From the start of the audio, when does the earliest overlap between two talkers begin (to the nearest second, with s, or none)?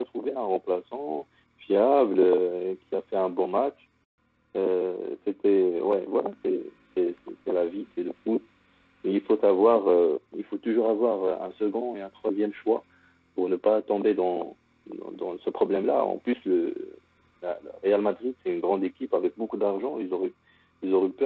none